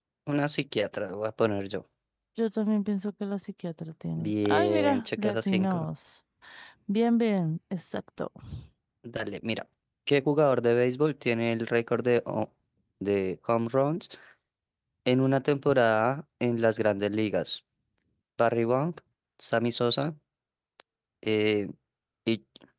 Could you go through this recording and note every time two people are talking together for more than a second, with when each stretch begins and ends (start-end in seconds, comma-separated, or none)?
4.2-5.9